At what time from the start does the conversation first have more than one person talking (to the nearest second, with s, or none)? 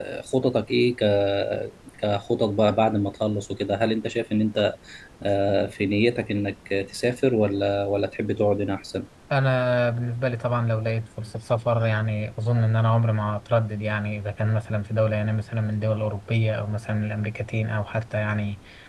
none